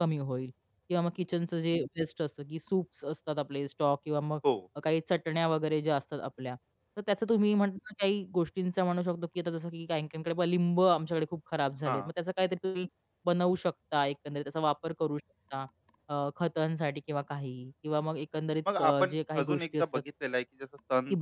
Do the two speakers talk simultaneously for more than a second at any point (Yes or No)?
Yes